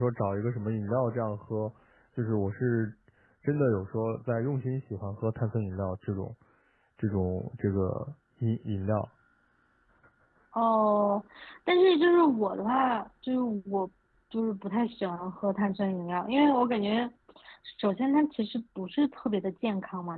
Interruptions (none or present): none